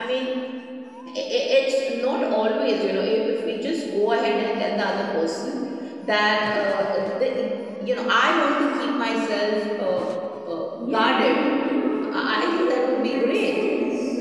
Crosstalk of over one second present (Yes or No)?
Yes